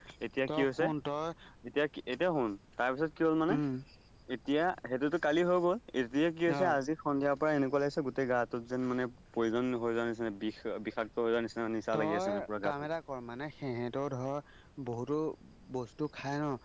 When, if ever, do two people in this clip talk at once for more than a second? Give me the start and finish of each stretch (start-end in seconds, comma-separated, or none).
none